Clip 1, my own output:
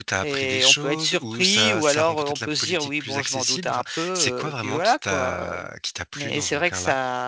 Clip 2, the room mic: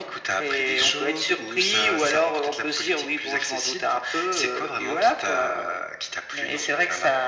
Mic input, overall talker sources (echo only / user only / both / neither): echo only